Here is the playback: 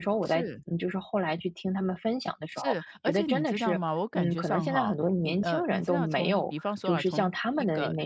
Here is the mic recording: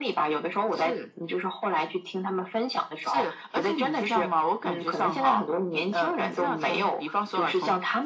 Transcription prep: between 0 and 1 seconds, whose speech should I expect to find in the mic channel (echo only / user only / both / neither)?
echo only